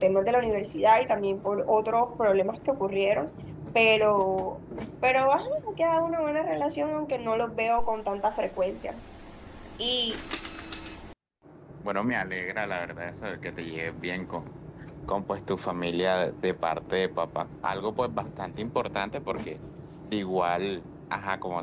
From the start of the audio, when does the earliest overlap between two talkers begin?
none

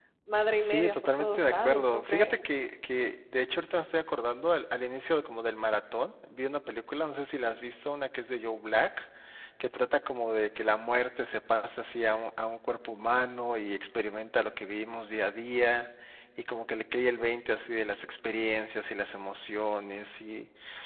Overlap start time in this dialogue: 1 s

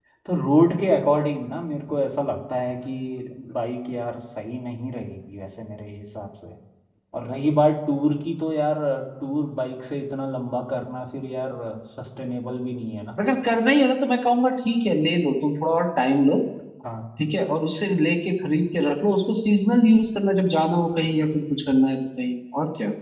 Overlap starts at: none

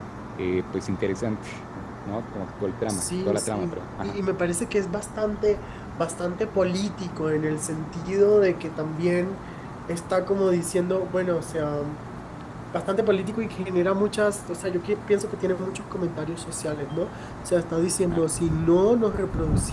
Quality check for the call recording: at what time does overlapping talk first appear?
3 s

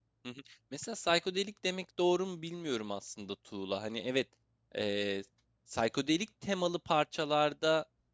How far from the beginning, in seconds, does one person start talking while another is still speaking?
none

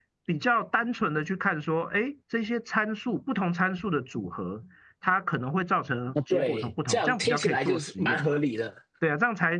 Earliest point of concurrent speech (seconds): 6 s

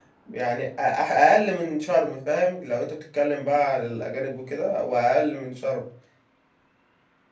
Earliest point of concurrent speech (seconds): none

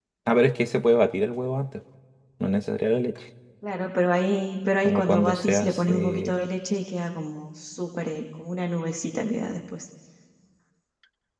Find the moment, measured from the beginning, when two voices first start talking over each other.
5 s

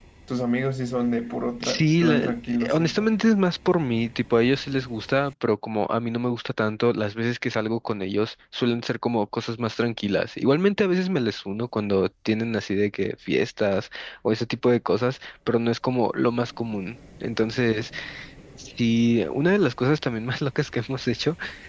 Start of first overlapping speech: 2 s

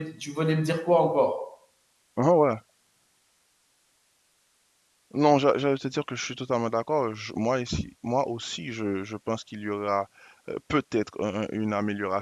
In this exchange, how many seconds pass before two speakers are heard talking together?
none

